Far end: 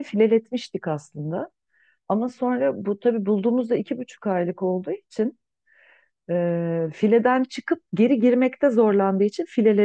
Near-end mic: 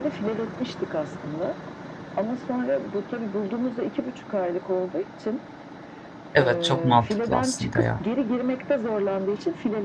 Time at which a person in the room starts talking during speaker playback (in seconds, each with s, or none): 6.3 s